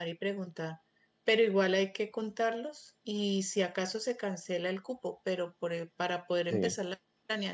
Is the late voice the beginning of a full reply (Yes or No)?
No